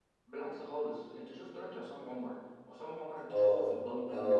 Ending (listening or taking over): taking over